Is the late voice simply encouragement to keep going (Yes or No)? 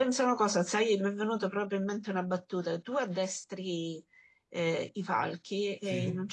Yes